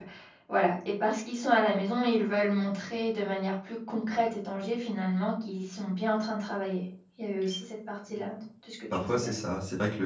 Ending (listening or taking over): taking over